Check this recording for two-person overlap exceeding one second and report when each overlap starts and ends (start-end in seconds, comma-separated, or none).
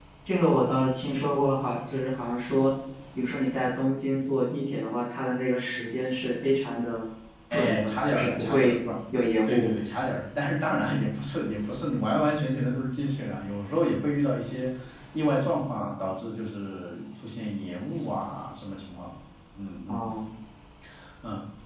7.5-8.7